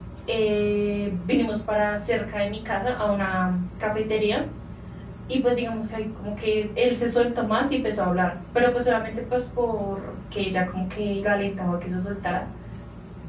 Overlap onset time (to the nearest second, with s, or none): none